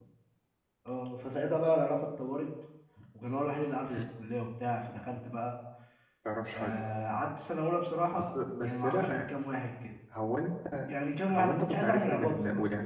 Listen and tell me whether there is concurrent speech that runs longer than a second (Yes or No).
Yes